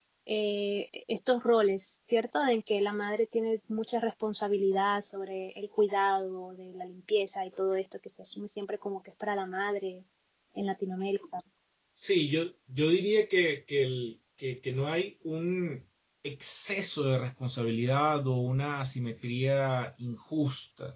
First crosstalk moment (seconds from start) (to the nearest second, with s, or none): none